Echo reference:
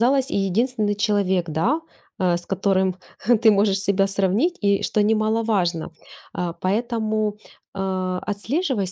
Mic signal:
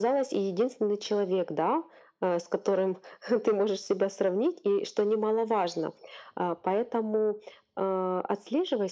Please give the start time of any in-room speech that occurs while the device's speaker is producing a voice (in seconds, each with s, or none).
none